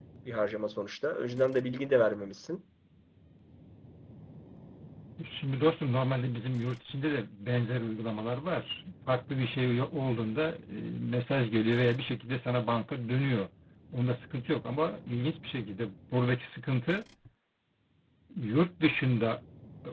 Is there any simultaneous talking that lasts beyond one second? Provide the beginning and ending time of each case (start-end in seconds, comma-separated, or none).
none